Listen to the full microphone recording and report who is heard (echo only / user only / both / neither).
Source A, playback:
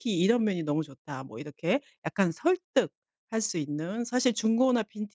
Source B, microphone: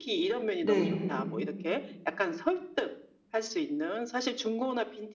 both